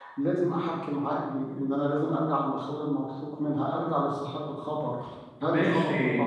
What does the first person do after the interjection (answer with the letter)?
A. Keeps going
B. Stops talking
B